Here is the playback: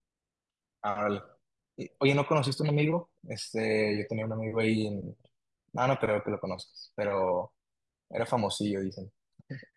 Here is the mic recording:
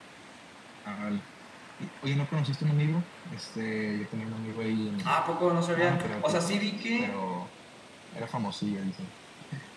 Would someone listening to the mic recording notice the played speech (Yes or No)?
Yes